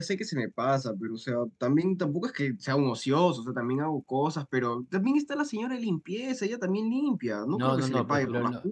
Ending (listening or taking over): taking over